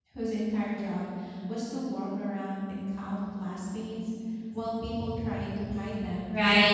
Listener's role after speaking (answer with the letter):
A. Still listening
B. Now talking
B